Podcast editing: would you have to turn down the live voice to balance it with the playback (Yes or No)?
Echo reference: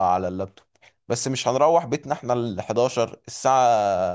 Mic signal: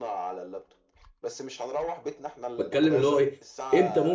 Yes